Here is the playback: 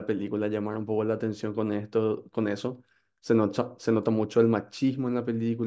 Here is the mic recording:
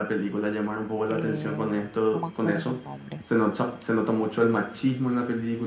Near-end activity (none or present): present